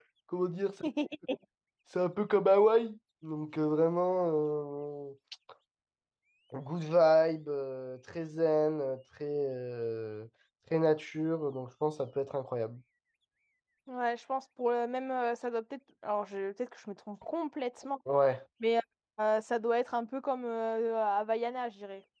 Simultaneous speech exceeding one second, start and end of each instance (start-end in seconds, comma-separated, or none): none